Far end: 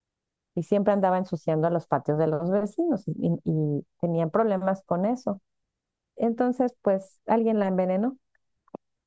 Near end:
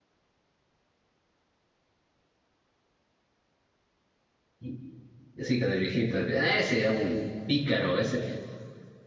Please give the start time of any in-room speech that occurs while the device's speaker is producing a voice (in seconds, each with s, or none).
4.6 s